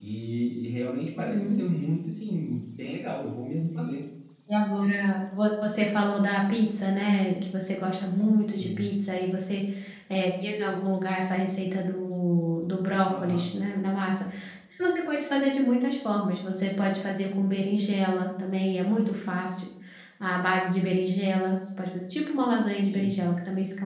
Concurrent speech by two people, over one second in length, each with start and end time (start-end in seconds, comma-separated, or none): none